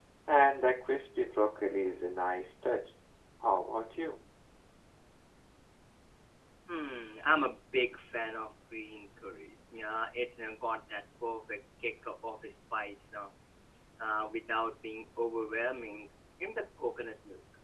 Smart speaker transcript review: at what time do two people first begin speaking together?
none

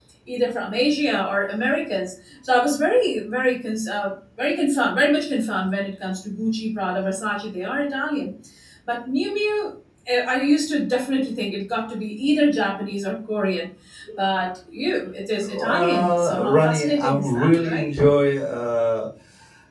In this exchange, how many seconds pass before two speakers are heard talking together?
15.5 s

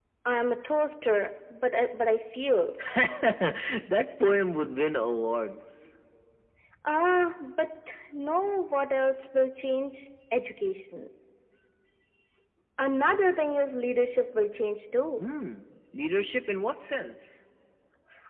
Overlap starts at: none

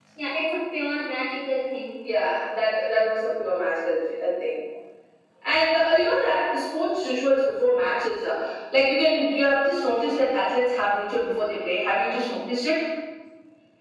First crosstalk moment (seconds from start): none

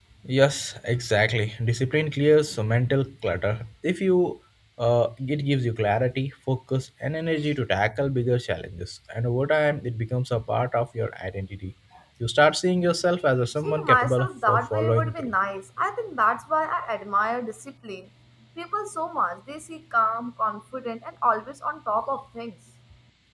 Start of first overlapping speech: 13.6 s

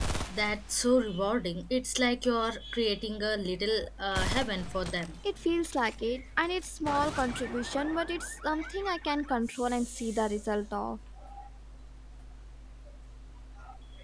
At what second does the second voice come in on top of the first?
none

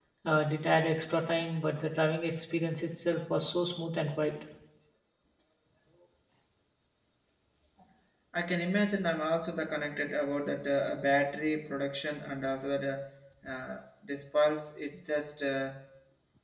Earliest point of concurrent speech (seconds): none

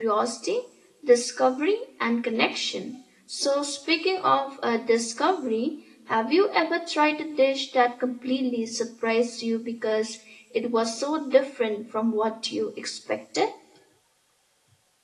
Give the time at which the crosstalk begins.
none

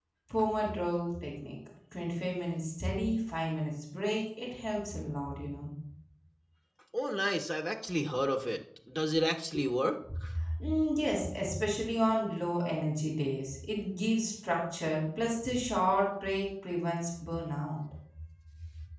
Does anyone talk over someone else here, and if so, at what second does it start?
none

